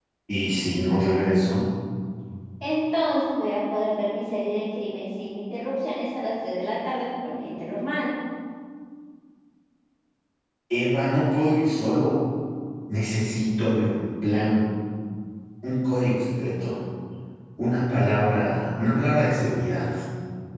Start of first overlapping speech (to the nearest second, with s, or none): none